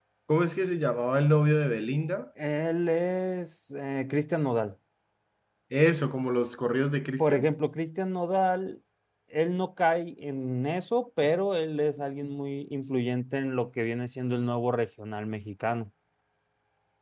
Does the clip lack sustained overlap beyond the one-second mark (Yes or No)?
Yes